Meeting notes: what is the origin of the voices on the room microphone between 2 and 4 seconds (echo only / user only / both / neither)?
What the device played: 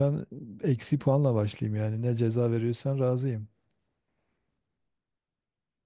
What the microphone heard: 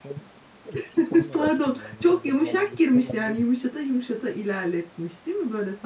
both